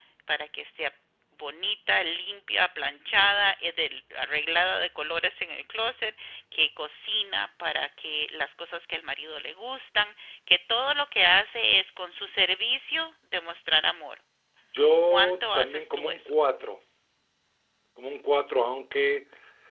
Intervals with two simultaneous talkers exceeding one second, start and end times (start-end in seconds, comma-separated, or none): 15.1-16.3